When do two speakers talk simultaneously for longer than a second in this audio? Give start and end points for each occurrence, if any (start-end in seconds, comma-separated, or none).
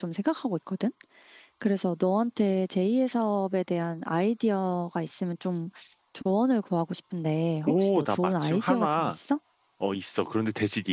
7.7-9.2